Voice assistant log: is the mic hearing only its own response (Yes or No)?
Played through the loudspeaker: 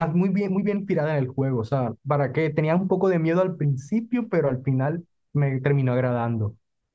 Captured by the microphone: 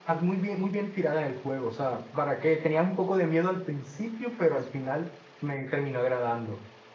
Yes